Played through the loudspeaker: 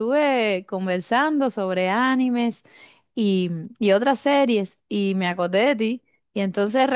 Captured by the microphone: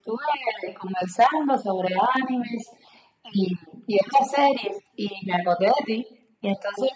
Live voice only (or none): none